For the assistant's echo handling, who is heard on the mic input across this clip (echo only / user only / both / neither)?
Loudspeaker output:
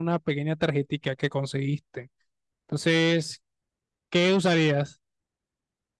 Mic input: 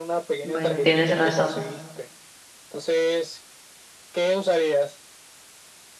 both